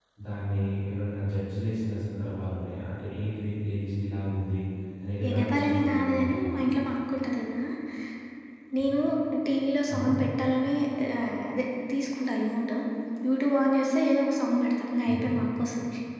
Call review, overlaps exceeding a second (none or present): present